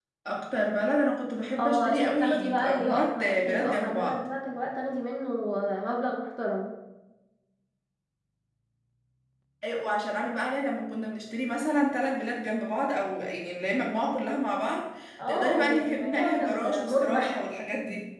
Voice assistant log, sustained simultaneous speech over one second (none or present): present